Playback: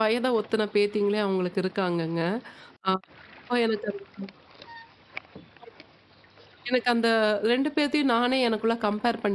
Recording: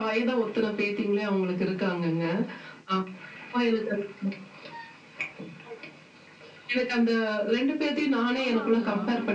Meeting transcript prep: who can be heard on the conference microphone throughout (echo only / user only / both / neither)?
both